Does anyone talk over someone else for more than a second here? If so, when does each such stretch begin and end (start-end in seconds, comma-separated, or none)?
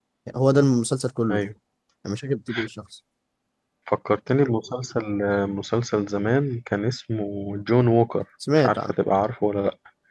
none